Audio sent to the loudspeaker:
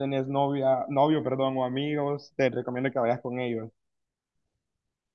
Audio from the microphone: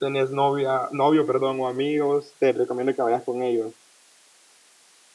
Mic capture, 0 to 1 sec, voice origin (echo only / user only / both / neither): echo only